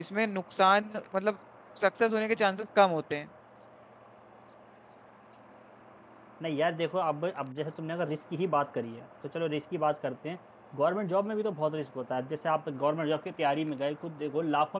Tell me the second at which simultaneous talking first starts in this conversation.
none

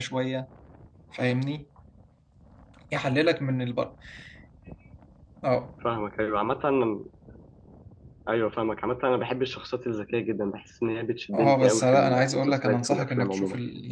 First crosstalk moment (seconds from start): 11.3 s

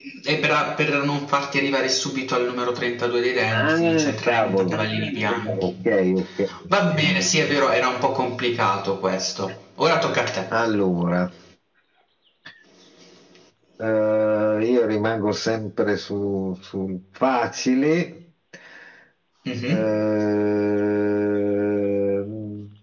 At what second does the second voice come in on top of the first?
3.5 s

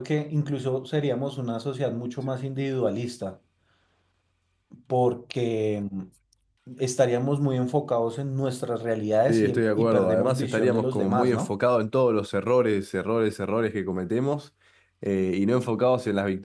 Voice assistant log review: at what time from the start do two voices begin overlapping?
9.3 s

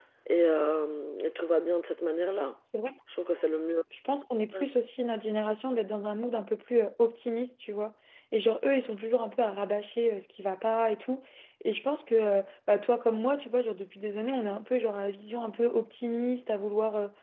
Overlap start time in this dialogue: none

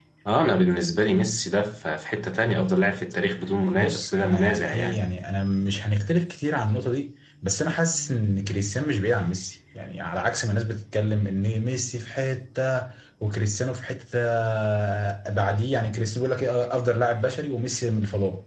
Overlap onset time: 3.7 s

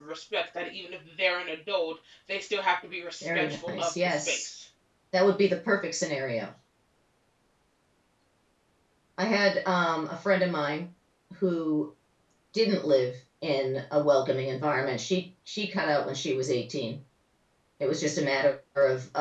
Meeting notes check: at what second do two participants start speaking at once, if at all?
3.2 s

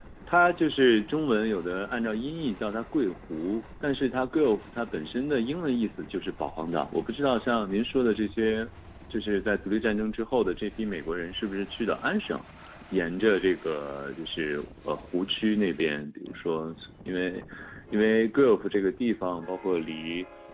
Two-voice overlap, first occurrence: none

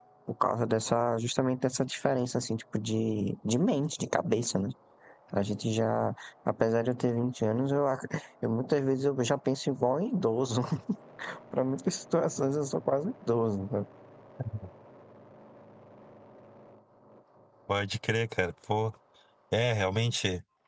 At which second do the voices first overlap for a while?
none

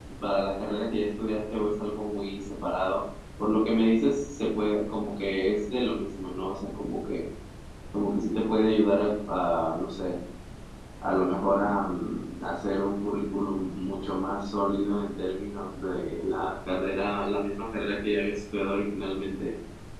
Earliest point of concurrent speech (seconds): none

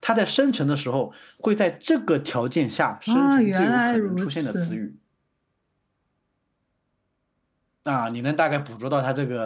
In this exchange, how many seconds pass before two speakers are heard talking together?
3.1 s

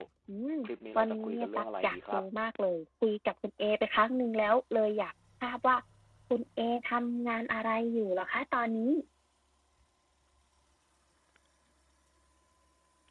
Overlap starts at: 1.0 s

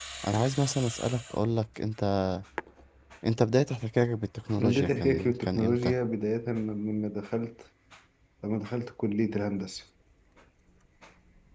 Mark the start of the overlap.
4.6 s

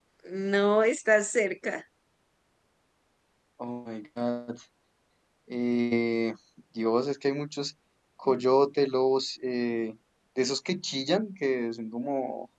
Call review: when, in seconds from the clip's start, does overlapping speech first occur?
none

